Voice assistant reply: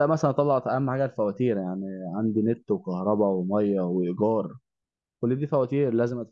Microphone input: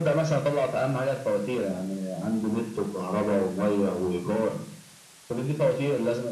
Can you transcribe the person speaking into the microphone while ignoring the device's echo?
none

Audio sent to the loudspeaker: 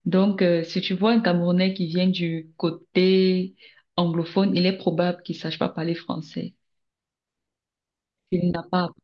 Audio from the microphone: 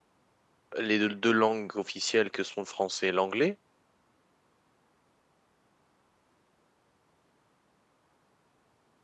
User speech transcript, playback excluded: les deux, deux langues officielles que sont le français et l'anglais.

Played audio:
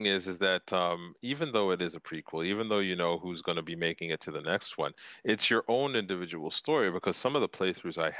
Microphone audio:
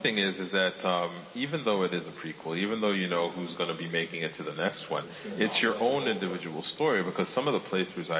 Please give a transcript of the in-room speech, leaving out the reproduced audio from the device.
They're just gonna knock it out the ballpark.

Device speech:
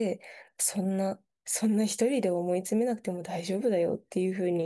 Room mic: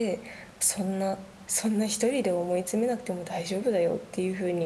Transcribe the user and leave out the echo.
none

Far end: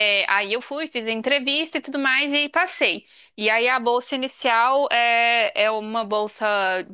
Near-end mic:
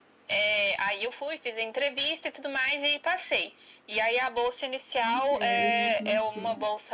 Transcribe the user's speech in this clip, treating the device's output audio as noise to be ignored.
Não quero, né? Não quero.

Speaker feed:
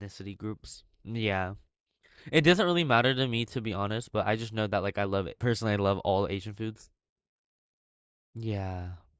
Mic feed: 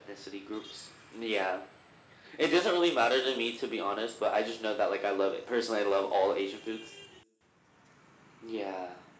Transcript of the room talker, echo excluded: none

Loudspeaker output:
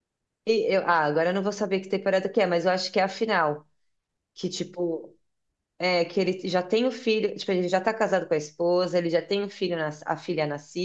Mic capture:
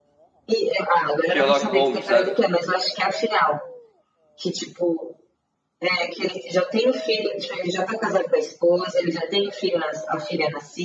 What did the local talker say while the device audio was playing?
Sherlock Holmes, sabe?

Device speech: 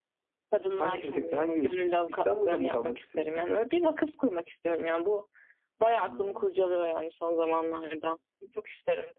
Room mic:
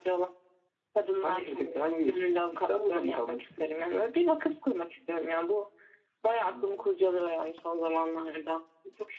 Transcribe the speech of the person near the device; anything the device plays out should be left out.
none

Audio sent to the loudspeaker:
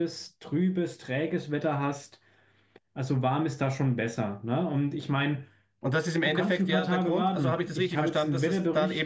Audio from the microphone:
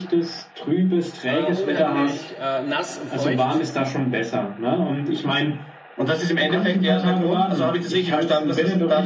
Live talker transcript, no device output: äh, unheimlich äh, nass und feucht,

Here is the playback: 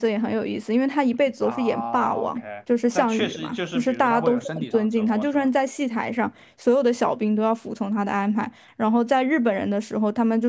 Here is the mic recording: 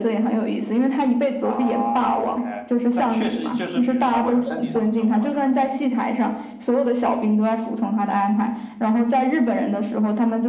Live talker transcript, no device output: none

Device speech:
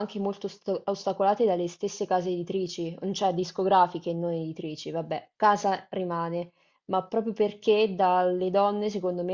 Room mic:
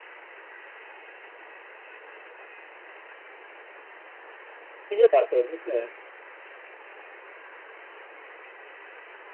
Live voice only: Quindi ha dato invece

